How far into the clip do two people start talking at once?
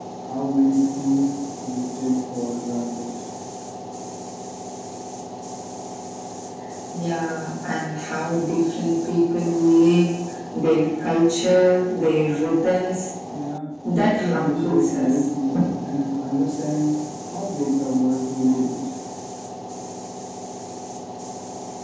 13.9 s

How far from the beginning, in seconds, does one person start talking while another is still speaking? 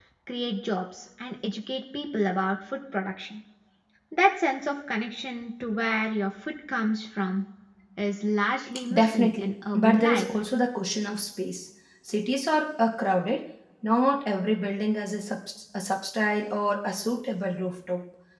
8.9 s

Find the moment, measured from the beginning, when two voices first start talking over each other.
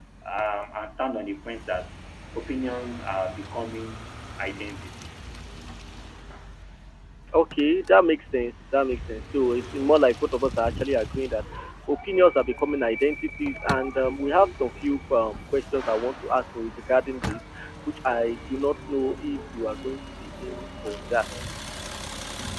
none

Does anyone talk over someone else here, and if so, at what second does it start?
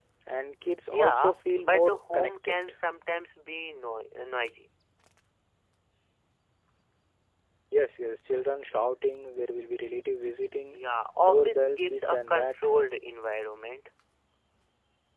0.9 s

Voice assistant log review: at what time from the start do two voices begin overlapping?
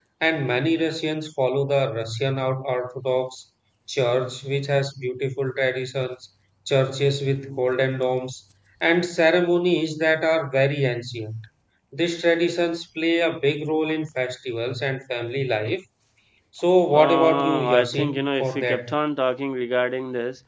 16.9 s

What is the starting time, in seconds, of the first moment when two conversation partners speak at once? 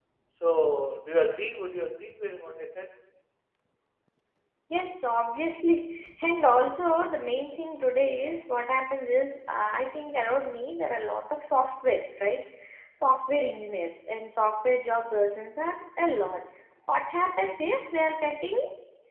none

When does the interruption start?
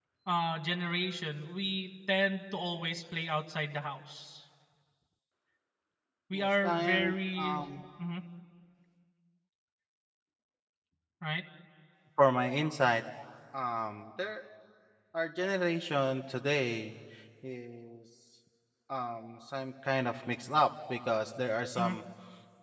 6.3 s

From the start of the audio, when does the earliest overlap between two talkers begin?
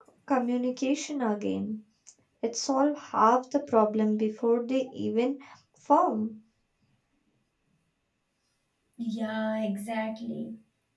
none

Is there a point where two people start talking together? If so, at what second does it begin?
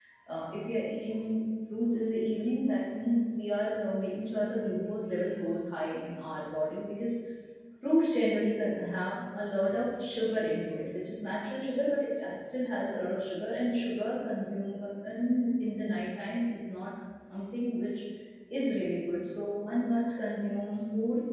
none

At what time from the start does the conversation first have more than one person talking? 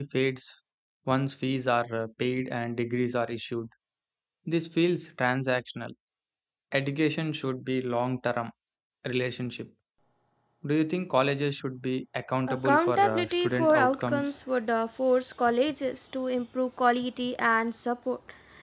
12.5 s

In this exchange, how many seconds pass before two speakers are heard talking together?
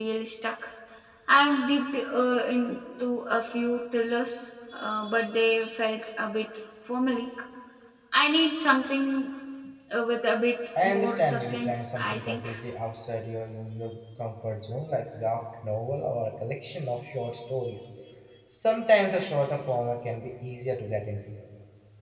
10.8 s

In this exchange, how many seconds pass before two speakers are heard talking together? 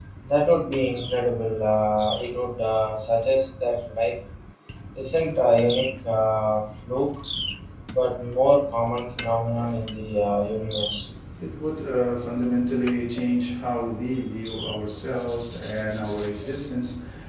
none

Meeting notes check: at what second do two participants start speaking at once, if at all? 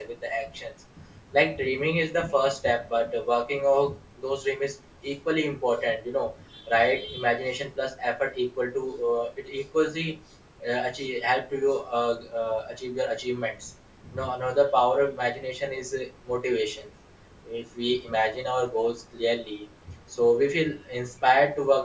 none

